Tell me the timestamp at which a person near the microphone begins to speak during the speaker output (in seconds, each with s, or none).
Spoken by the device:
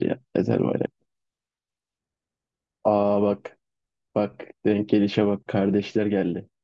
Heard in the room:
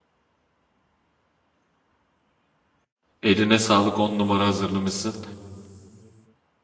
3.2 s